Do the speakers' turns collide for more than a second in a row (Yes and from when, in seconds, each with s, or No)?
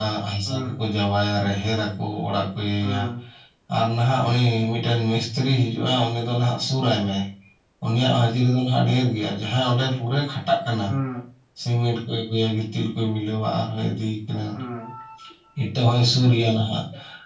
No